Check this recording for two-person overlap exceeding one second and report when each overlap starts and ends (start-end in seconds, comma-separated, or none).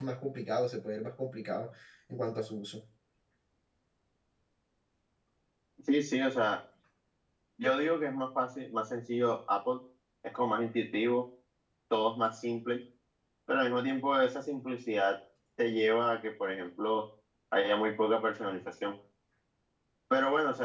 none